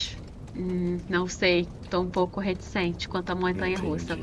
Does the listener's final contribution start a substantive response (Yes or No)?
Yes